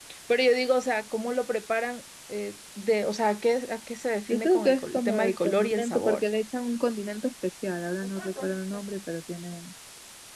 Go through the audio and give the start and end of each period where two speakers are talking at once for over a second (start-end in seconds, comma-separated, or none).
4.3-6.2